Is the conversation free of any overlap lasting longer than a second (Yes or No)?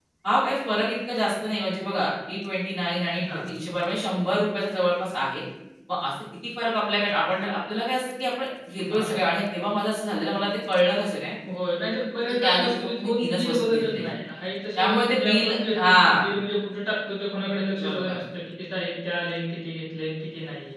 No